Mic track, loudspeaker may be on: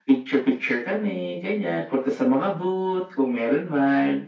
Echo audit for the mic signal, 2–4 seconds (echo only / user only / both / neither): echo only